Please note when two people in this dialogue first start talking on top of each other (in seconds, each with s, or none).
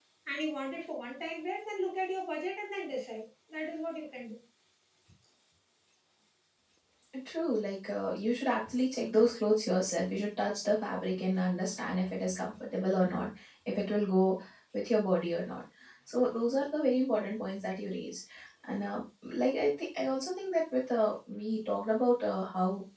none